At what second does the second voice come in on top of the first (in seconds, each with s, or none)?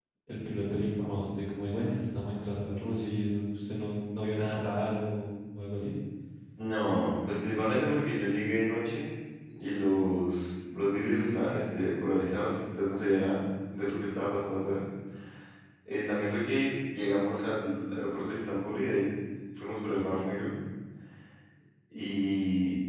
none